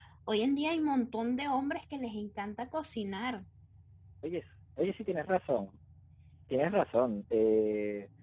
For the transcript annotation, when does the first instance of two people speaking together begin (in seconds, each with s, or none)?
none